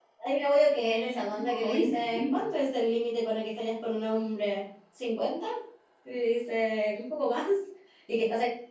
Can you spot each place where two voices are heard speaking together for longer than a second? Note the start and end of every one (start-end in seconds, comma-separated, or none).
0.9-2.4